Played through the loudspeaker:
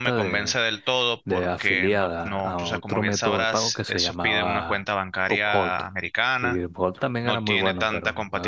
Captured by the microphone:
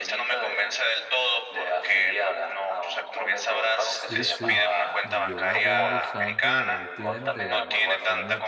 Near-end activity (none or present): present